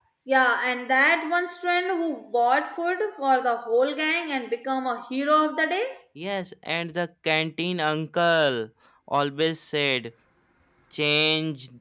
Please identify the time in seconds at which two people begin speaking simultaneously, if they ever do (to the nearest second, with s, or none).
none